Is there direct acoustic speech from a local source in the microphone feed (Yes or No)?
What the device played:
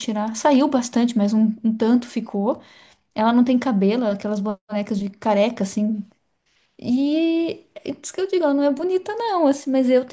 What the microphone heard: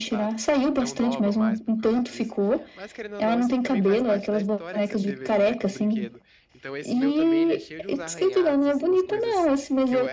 Yes